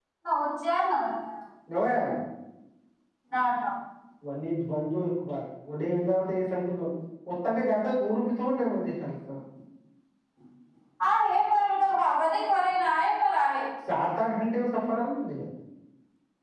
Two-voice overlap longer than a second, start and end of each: none

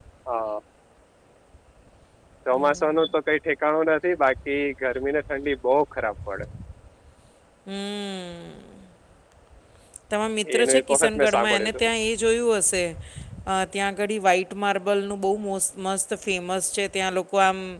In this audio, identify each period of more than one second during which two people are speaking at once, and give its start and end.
10.6-11.9

